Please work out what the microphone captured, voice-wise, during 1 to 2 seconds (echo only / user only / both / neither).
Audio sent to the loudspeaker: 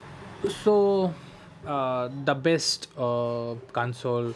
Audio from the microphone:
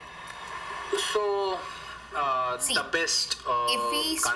echo only